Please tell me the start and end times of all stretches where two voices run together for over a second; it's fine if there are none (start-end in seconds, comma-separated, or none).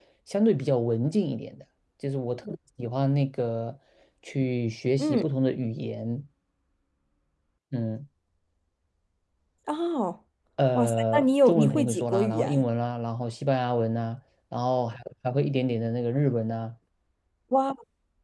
10.8-12.6